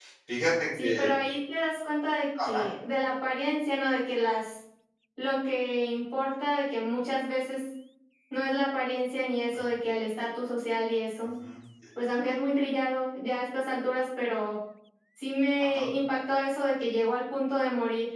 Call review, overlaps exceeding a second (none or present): none